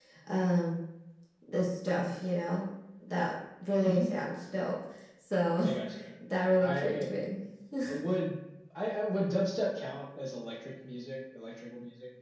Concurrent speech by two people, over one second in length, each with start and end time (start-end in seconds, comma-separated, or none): none